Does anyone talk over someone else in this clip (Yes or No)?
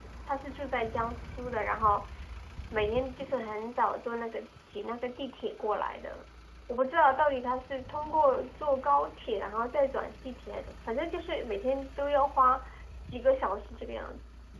No